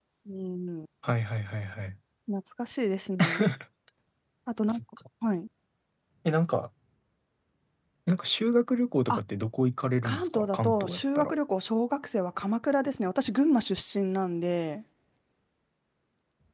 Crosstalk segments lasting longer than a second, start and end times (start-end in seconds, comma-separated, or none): 10.0-11.3